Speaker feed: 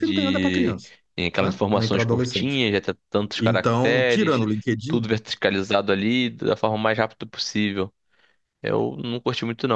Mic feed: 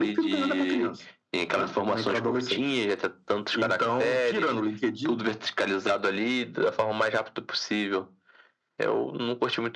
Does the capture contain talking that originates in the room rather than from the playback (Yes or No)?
No